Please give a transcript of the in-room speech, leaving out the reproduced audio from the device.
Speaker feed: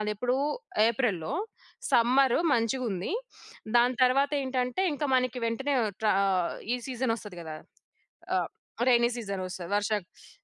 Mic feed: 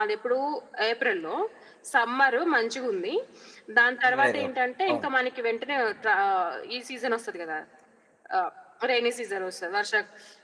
2021 అవును.

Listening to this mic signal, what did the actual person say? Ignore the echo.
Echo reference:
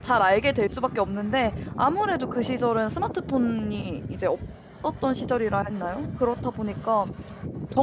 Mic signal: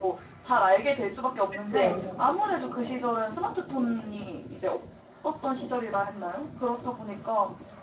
그렇죠.

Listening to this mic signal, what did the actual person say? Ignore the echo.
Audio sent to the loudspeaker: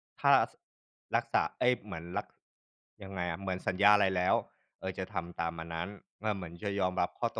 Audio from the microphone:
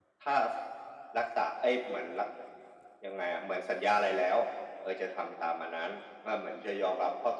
none

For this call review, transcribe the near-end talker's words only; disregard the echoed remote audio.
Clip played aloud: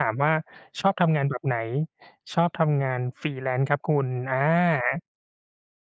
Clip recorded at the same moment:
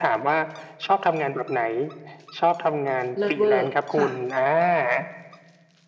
เลิศเวอร์ ค่ะ

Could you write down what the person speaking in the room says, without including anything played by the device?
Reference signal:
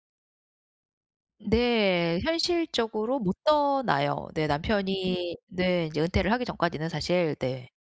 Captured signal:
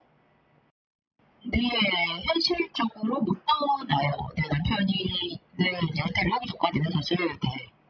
none

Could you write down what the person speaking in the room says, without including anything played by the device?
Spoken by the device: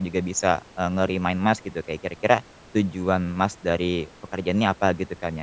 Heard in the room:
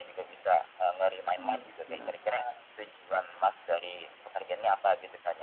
Jangan lupa istirahat.

